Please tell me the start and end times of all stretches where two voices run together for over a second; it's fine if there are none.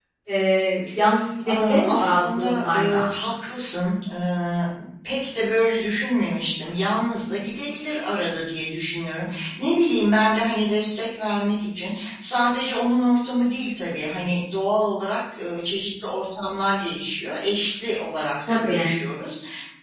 1.5-3.1

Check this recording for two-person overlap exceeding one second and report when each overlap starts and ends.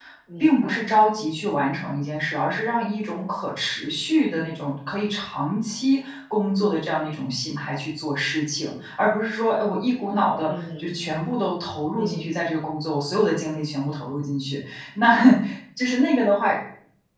none

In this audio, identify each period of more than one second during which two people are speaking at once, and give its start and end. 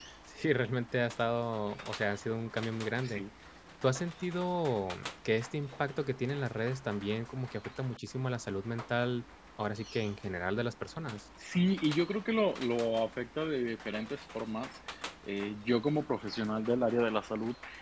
none

